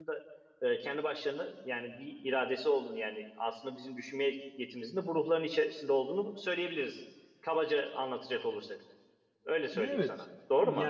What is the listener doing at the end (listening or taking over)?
taking over